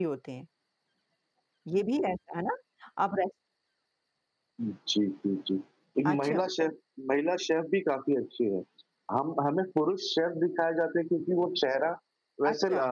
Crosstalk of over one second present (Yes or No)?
No